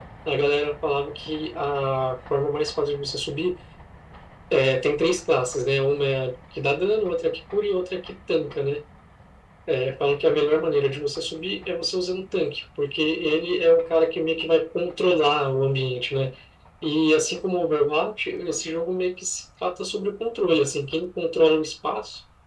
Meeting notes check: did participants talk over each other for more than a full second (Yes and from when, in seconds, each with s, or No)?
No